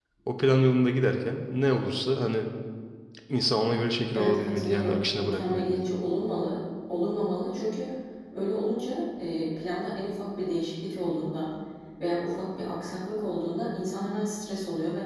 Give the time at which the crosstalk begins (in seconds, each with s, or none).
4.1 s